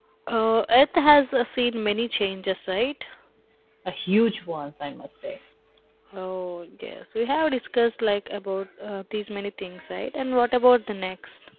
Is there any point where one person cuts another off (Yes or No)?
No